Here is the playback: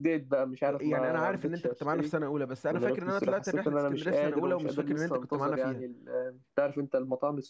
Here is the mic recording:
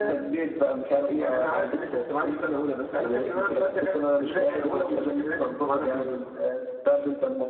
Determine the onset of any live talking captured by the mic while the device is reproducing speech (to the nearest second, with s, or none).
none